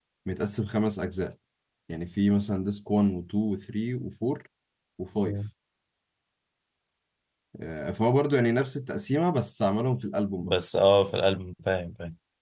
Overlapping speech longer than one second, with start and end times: none

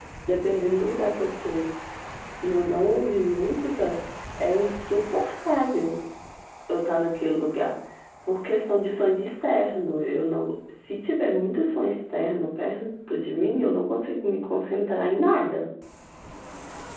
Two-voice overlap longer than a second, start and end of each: none

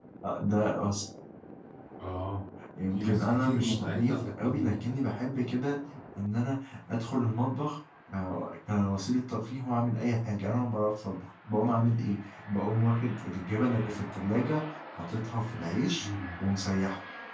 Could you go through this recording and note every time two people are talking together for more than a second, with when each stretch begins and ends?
2.9-4.8

